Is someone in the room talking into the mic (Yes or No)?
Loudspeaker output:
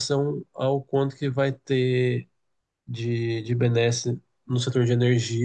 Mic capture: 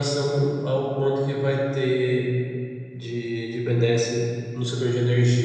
No